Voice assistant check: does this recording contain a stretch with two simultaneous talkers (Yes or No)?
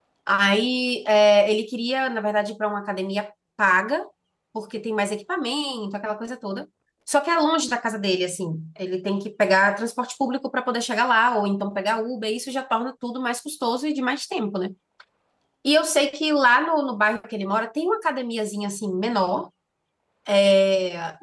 No